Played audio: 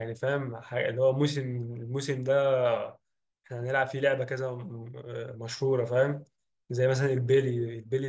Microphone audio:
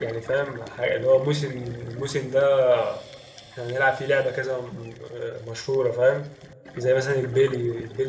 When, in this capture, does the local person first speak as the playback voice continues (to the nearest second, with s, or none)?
none